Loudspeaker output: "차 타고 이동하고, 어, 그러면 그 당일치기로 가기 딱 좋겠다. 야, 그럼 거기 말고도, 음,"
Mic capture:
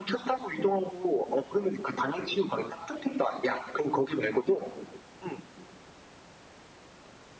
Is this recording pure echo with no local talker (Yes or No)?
Yes